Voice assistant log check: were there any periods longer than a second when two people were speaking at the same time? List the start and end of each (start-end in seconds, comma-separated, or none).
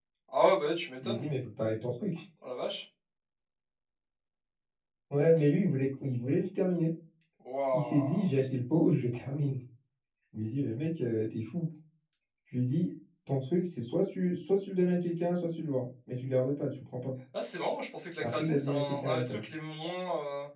18.2-19.4